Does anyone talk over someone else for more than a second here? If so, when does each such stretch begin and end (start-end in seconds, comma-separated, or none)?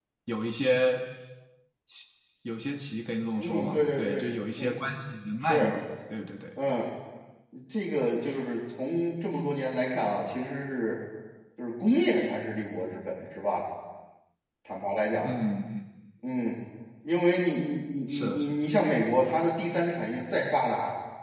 3.4-4.8